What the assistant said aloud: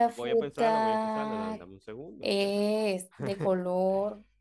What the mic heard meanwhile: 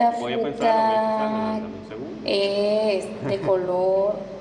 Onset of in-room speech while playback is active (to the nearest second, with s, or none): none